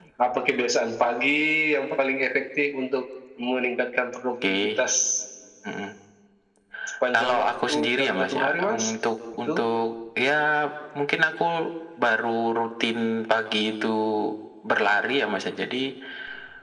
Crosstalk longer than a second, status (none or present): present